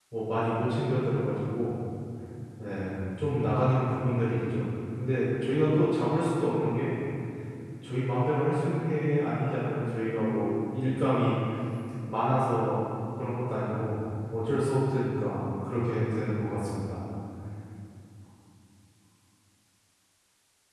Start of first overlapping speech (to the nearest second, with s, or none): none